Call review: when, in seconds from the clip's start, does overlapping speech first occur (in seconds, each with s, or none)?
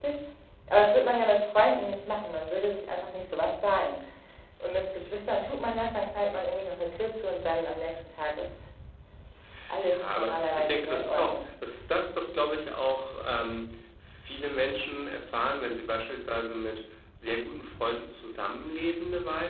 9.8 s